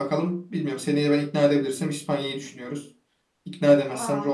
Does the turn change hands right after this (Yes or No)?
No